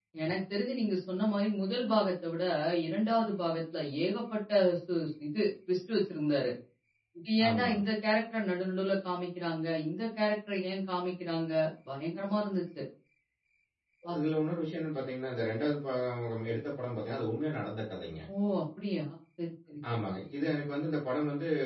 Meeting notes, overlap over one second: none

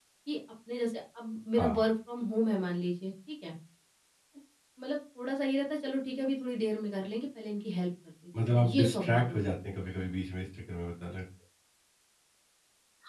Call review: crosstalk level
present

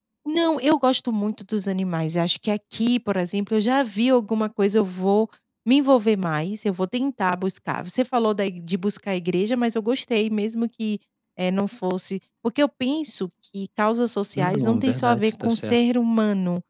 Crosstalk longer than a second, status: present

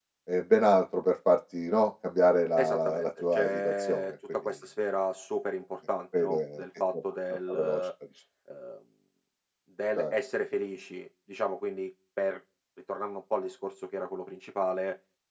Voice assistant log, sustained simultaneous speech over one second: present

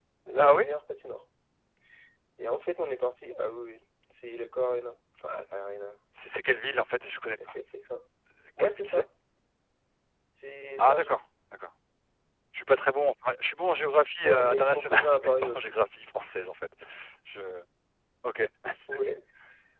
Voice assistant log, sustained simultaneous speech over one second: present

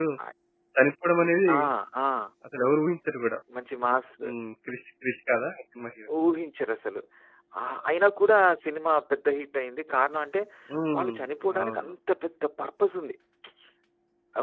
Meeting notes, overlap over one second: none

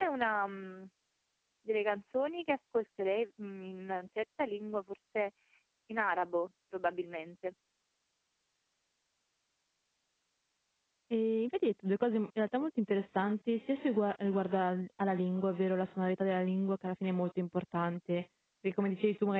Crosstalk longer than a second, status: none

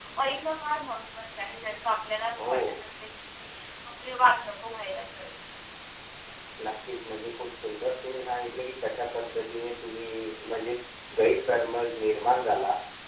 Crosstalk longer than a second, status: none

